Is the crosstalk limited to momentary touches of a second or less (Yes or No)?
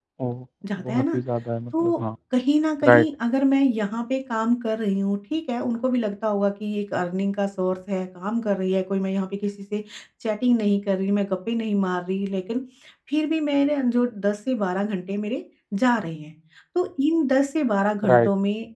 Yes